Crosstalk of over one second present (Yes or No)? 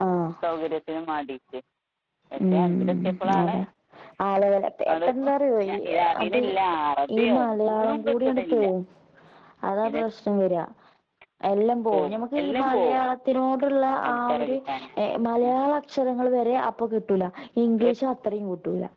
Yes